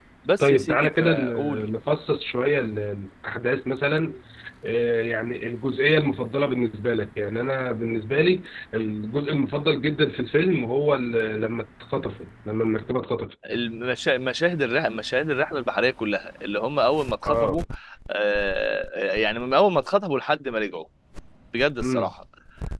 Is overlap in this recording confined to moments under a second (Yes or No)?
No